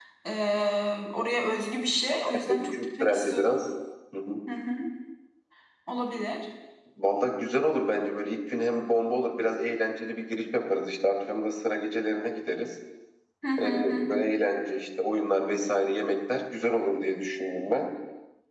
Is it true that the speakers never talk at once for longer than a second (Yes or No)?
No